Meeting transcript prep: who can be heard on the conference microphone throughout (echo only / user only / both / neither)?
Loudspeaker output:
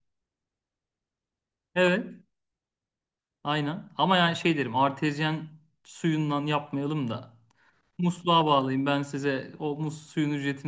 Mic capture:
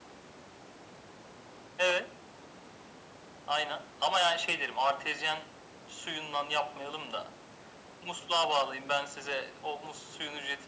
echo only